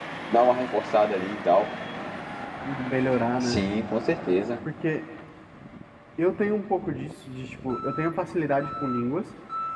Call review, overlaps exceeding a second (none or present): none